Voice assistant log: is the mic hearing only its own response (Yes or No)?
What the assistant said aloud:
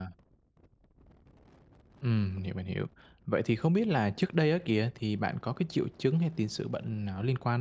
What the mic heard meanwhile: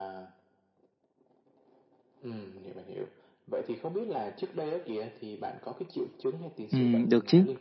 No